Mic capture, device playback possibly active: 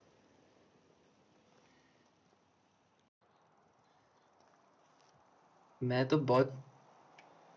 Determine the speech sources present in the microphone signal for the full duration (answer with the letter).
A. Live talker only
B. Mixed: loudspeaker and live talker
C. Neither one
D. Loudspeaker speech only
A